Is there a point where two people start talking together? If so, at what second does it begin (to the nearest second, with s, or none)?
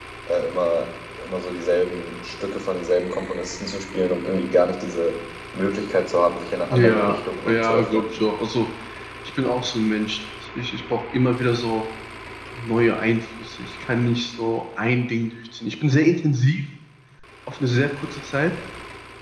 7 s